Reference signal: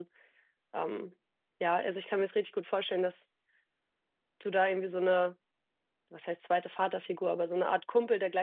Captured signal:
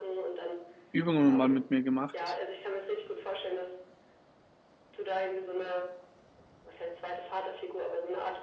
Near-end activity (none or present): present